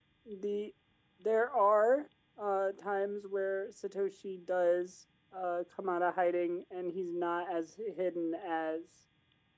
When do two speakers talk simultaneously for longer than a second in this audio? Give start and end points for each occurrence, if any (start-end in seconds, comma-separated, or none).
none